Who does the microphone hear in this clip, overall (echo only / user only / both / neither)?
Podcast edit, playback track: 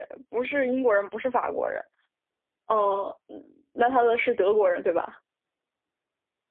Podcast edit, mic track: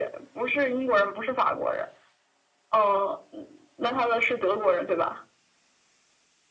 echo only